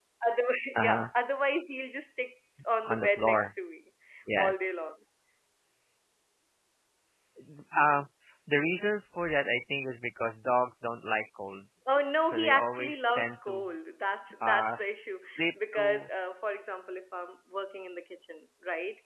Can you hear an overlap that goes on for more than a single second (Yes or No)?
Yes